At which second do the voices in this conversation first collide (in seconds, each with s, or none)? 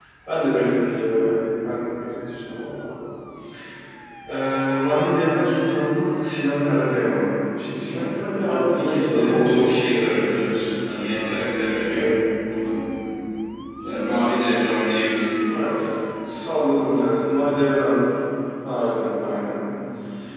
8.4 s